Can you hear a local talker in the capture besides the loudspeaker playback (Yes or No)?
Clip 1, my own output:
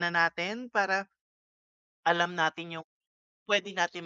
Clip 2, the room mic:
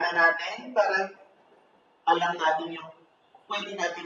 No